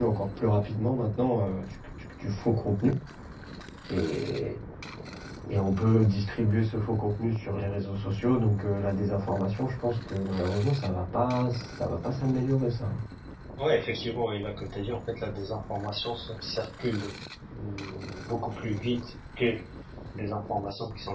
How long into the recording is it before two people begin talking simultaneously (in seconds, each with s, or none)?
none